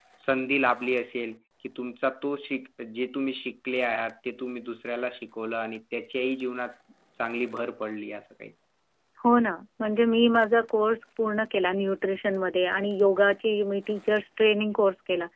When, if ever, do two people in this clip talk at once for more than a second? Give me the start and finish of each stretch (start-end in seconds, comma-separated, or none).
none